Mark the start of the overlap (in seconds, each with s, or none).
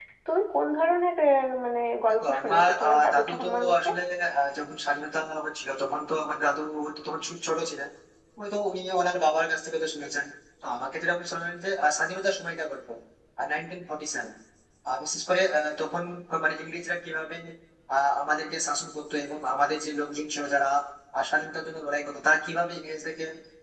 2.1 s